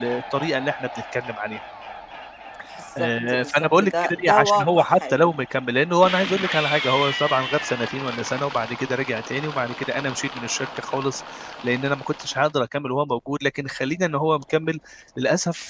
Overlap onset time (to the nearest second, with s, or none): 3 s